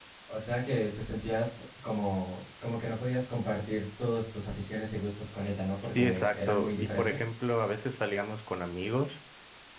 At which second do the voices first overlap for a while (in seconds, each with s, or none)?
6.0 s